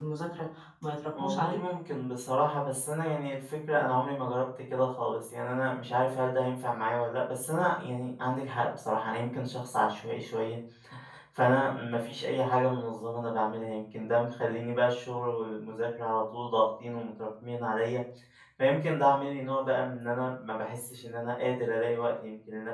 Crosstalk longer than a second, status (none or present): none